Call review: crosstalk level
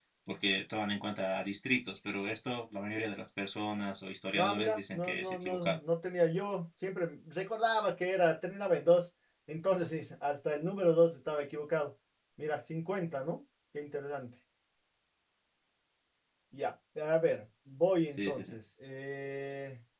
present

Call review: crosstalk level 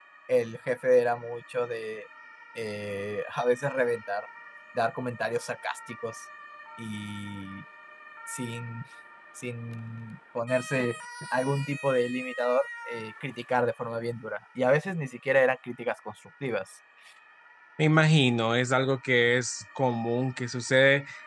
none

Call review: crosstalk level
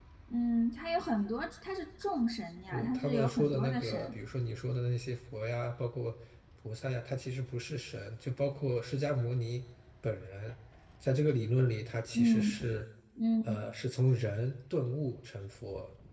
present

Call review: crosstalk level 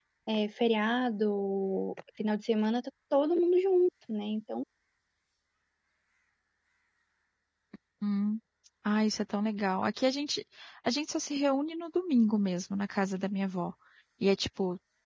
none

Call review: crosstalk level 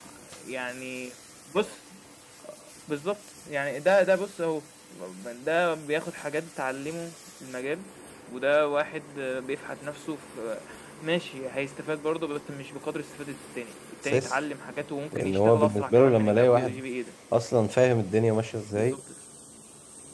present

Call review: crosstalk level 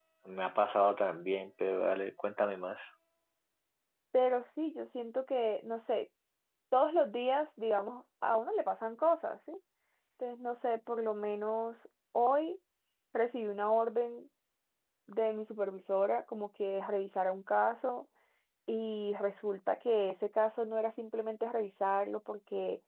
none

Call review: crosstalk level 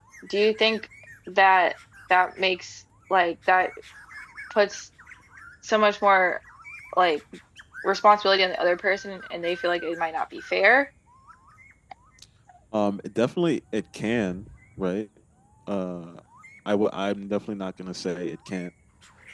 none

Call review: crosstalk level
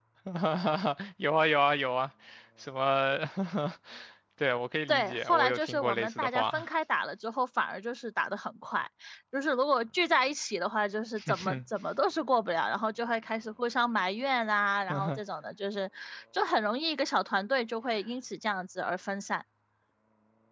present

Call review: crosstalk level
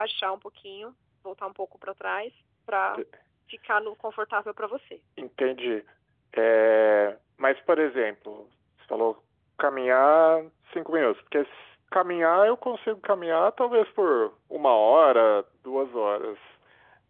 none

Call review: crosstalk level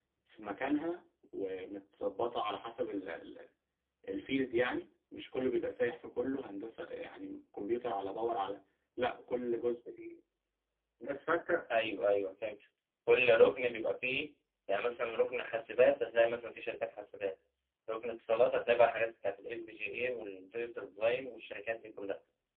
none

